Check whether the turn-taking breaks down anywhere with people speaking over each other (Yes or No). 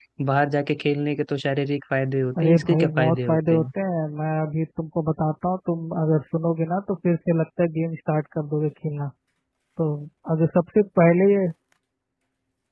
Yes